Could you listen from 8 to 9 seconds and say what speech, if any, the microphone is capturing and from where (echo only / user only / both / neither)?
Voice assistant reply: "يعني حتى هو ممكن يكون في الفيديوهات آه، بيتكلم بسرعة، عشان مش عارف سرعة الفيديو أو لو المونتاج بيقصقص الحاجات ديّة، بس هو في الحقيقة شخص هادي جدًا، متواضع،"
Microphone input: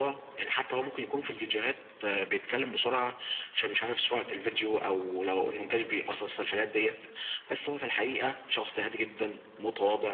echo only